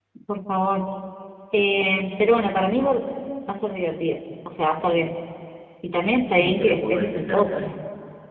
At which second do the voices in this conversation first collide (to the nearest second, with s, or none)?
6 s